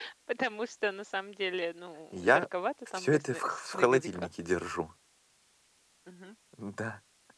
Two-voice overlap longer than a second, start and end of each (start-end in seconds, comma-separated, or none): 2.9-4.3